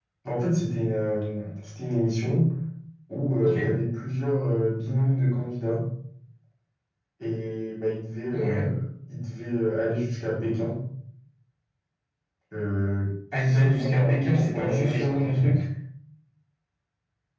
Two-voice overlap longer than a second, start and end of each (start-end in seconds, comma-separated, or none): 13.4-15.6